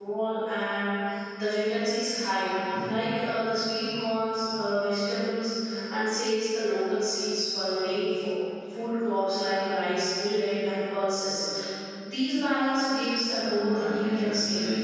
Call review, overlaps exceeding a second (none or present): present